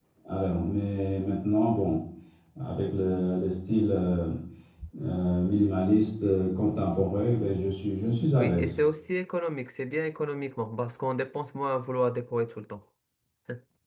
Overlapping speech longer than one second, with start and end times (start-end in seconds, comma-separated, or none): none